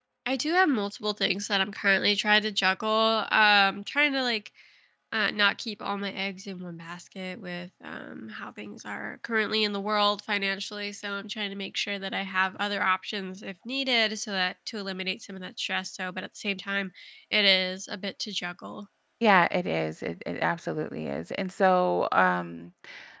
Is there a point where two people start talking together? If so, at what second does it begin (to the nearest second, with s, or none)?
none